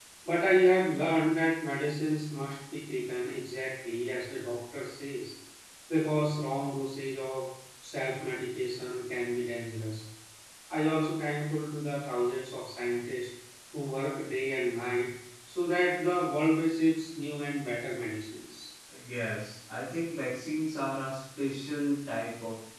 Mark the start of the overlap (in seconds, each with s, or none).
none